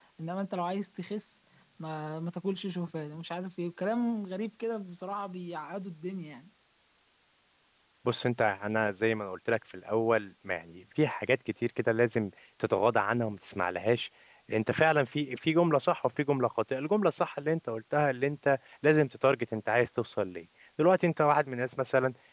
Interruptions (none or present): none